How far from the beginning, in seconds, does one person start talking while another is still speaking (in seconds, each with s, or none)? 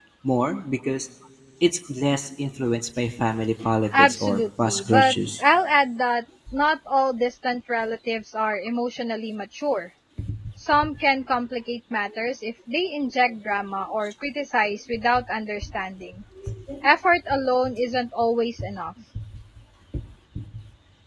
3.9 s